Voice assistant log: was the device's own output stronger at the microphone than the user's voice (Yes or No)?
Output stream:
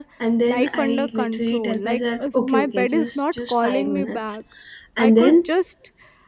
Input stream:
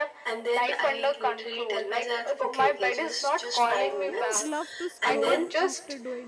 Yes